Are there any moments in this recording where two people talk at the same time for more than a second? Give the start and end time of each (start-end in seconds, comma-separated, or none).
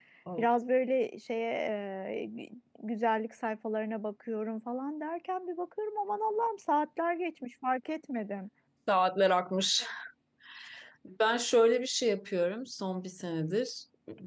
none